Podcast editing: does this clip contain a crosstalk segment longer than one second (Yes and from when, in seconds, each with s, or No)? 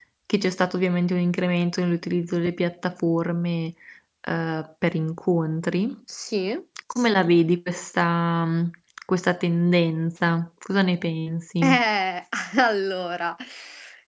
No